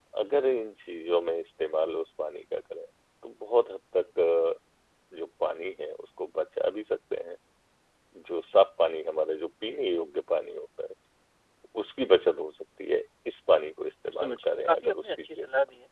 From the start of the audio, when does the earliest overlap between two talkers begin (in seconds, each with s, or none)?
14.1 s